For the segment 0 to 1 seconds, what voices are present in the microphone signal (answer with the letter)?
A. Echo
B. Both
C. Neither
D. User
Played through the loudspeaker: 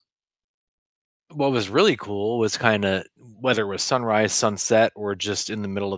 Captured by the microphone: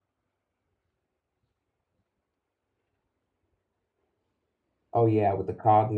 C